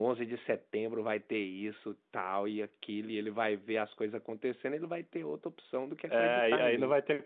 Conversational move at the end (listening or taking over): taking over